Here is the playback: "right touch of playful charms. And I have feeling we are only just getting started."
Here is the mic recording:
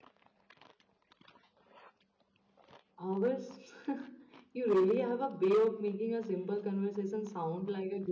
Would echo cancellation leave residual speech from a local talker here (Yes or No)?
Yes